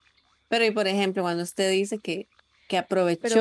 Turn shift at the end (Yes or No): No